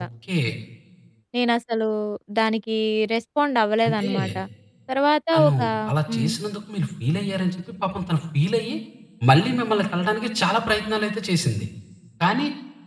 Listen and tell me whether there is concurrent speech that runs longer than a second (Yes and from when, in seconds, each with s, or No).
No